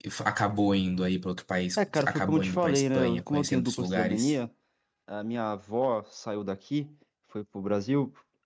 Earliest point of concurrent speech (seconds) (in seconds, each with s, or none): 1.8 s